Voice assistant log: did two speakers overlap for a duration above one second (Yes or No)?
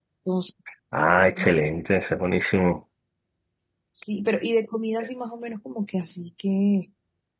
No